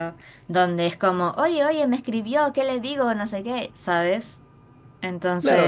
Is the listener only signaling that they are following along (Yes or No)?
No